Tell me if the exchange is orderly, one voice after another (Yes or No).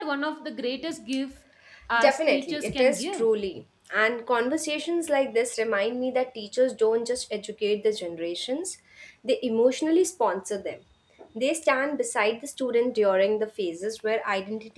No